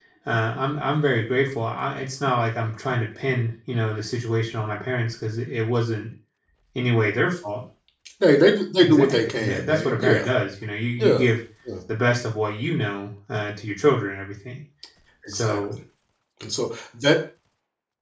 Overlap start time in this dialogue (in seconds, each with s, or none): 8.8 s